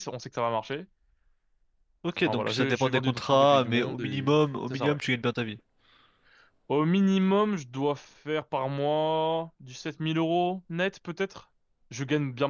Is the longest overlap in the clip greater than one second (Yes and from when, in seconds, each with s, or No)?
Yes, from 2.3 s